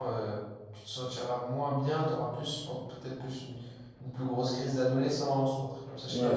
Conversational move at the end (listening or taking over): taking over